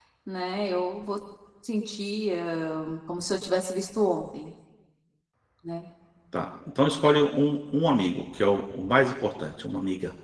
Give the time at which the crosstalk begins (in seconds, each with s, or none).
none